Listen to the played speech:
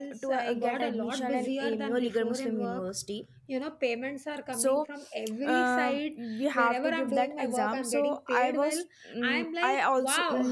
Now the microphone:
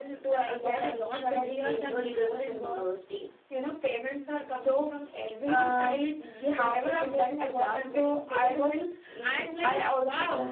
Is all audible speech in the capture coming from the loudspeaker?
Yes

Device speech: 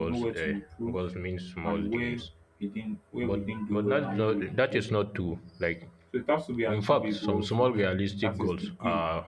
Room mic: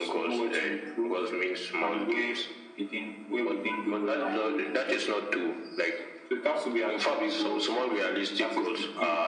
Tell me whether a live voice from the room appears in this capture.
No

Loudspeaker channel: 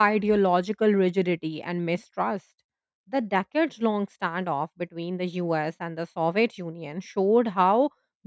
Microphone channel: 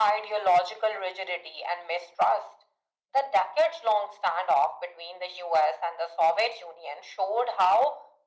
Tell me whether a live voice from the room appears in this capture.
No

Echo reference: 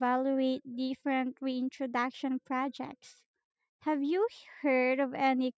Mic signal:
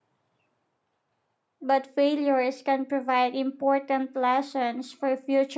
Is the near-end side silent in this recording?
No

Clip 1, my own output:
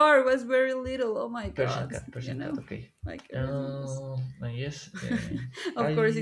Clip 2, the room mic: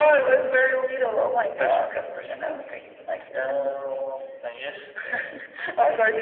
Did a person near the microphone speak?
No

